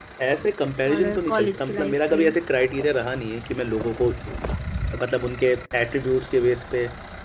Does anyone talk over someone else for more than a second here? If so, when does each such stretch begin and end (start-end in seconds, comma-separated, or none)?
0.9-2.4